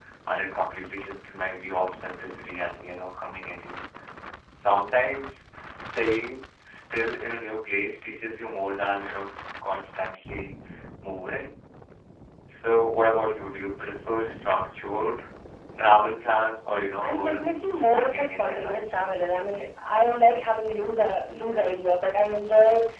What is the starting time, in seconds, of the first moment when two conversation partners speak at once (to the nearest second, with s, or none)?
17 s